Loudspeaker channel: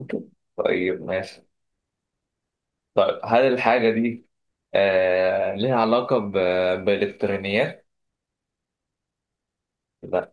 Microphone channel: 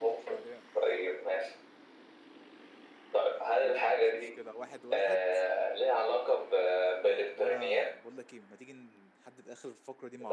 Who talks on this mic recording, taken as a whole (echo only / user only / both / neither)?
both